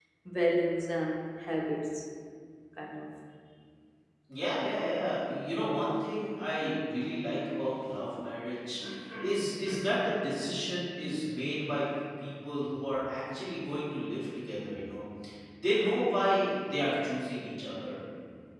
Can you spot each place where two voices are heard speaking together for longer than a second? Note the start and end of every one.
none

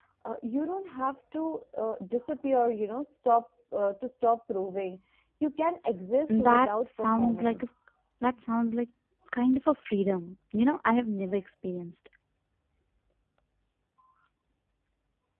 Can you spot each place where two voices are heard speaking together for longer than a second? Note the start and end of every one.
6.4-7.6

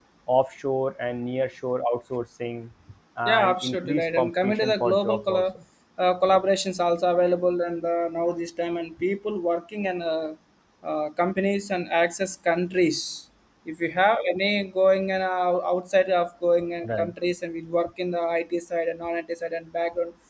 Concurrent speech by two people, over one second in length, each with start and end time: 3.3-5.4

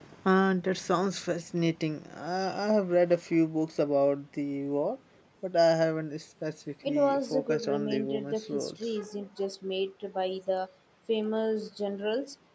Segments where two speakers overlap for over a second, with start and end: 6.9-9.0

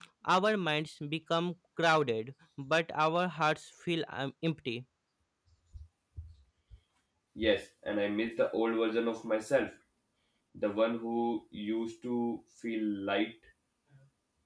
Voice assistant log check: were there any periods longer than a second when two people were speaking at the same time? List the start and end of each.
none

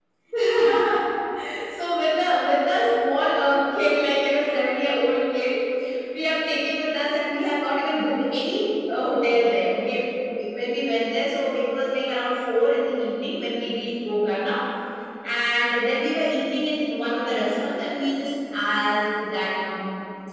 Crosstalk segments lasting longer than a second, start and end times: none

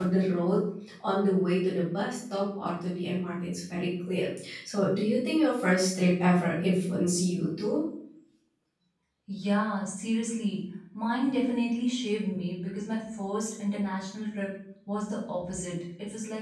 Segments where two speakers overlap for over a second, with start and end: none

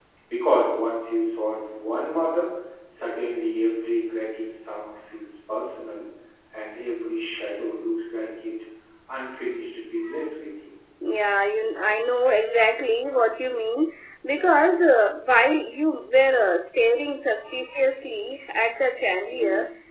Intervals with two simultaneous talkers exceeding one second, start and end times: none

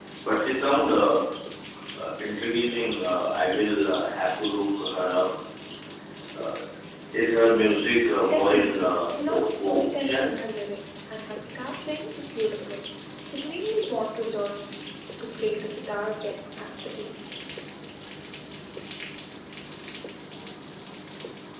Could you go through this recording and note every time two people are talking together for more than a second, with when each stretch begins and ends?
8.2-10.4

